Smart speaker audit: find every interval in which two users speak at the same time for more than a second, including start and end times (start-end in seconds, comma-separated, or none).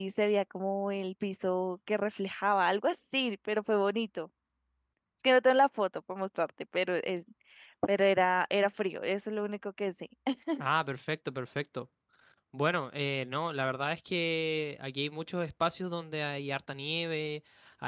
none